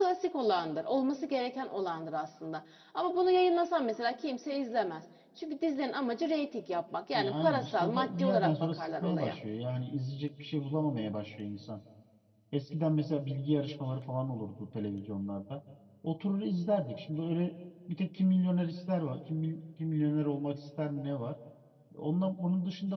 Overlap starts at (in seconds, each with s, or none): 7.1 s